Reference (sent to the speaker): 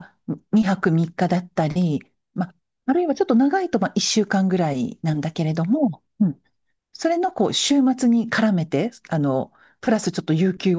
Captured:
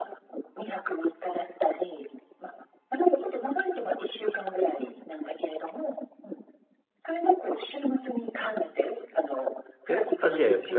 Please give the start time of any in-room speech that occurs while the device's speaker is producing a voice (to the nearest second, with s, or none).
10 s